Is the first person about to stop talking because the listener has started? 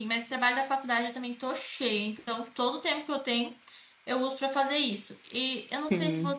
No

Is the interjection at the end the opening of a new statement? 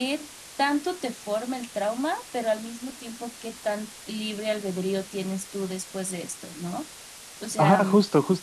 Yes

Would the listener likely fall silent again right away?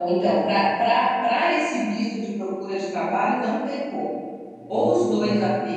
Yes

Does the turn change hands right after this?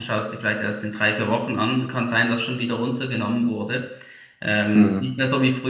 No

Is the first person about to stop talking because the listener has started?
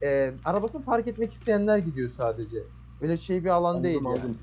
Yes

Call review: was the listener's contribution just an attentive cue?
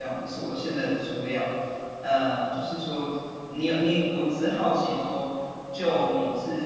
Yes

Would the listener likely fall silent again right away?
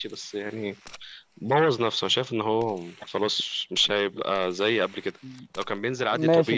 No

